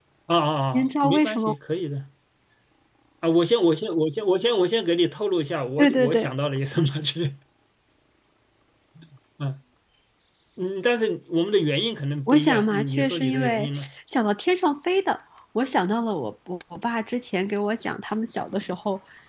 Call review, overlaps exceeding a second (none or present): present